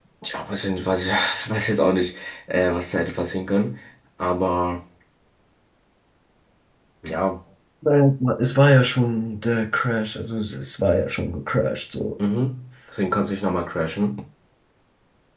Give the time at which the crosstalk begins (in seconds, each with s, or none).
none